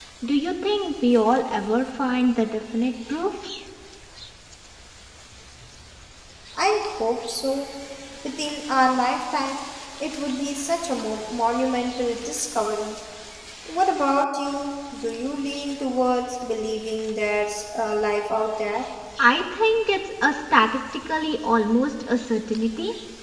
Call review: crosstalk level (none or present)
none